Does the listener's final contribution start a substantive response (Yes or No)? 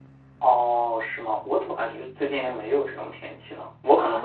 Yes